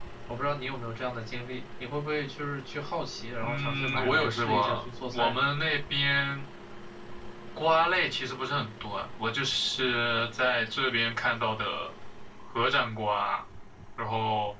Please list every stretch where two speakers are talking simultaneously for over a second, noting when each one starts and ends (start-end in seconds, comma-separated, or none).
3.4-5.4